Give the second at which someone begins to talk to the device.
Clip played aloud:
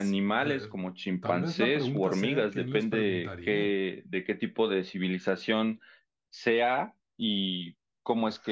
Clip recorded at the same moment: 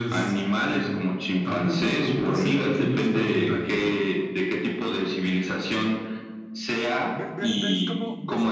7.1 s

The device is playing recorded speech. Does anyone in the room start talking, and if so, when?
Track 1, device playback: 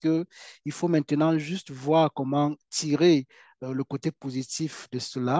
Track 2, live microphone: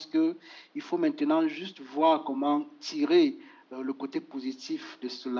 none

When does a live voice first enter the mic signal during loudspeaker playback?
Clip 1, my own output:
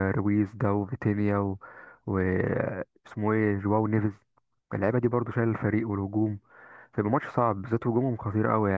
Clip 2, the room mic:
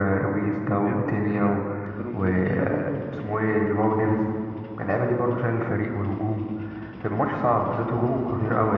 0.8 s

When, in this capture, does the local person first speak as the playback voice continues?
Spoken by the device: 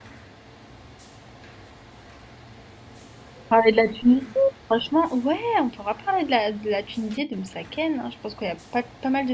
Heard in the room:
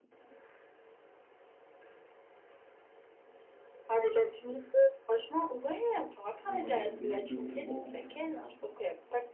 6.4 s

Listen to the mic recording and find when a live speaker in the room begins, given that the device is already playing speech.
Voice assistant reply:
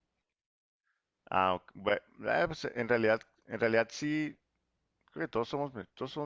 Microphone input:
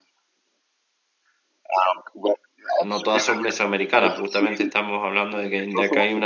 2.8 s

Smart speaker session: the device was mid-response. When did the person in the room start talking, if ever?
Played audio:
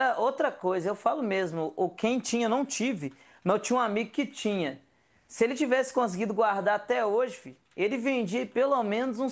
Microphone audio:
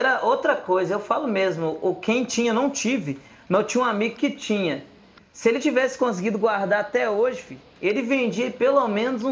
none

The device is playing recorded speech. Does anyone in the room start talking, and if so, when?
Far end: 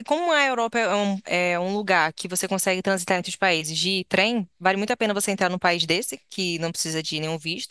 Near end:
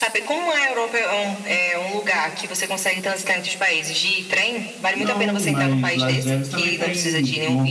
4.9 s

